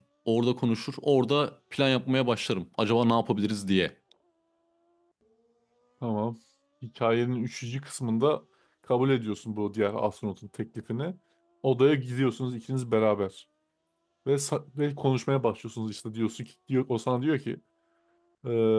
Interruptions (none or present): none